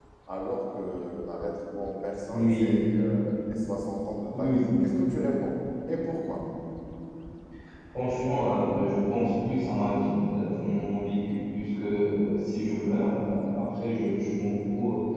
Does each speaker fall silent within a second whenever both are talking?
Yes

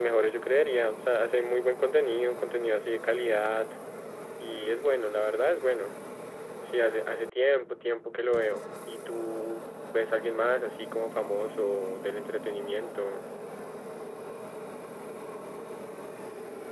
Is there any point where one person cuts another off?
No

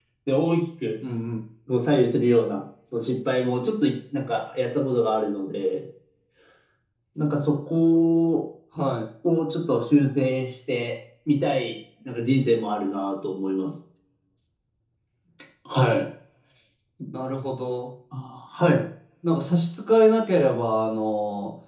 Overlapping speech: No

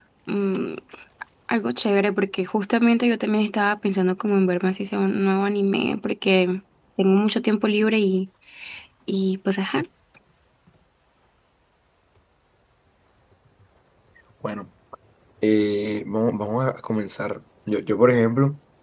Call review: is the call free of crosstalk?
Yes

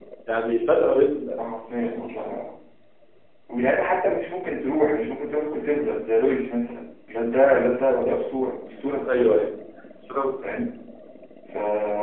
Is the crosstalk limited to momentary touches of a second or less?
Yes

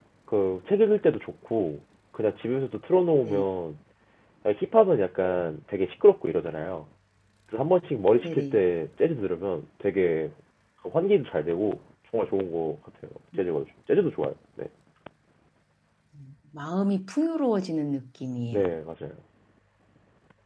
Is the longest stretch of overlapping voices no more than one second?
Yes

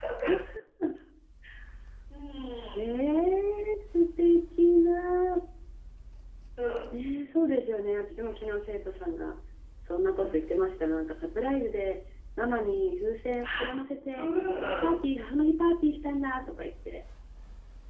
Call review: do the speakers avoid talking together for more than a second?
Yes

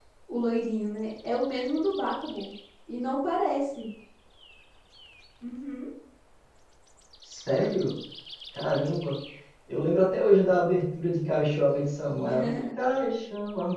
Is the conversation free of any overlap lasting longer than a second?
Yes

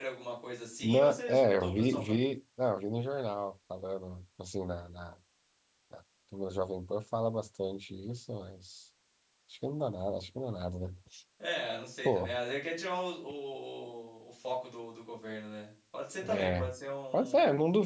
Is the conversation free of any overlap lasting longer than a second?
No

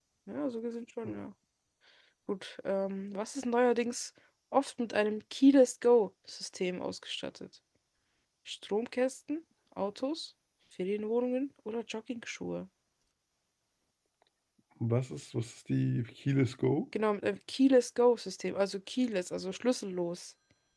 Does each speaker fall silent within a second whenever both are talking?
Yes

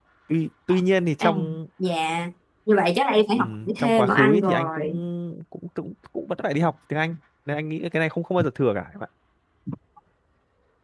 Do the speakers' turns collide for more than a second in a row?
Yes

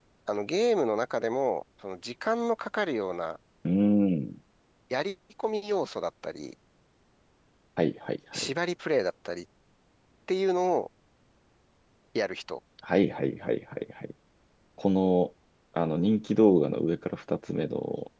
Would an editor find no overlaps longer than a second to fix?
Yes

